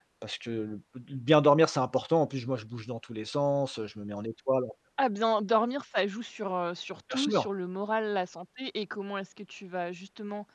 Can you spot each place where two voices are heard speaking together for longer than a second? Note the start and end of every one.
none

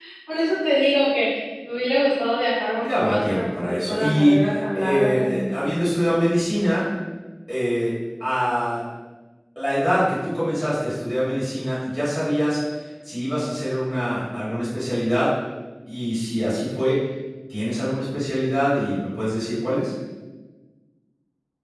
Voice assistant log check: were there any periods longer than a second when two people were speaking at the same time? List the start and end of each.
2.8-5.4

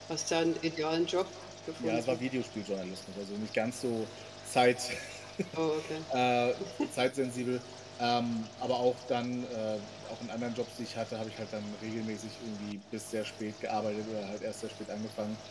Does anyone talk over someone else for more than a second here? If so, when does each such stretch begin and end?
none

